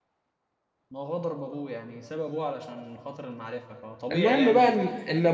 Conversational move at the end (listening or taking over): taking over